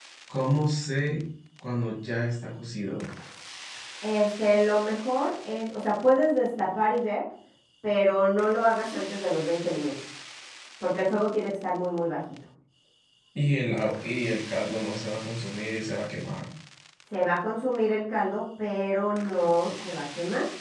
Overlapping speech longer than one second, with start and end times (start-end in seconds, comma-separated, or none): none